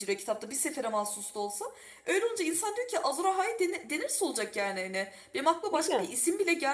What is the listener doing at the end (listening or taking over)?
listening